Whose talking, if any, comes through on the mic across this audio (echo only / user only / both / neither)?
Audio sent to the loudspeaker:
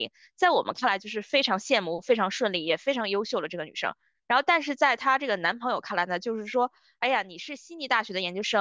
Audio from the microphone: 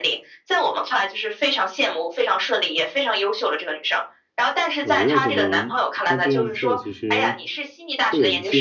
both